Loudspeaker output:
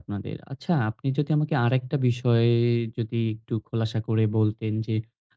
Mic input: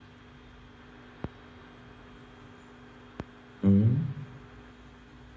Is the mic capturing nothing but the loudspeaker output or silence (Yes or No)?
No